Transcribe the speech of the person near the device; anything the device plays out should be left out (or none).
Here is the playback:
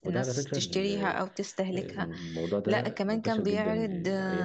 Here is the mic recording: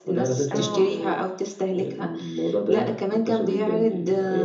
اه